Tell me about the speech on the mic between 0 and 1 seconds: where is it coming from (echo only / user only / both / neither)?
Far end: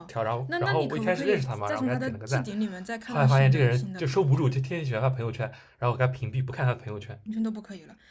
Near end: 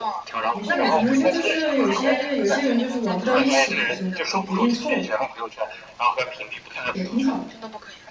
both